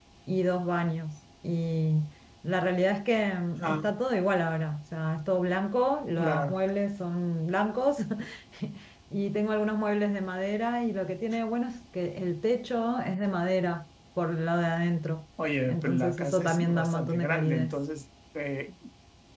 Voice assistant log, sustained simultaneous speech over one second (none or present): present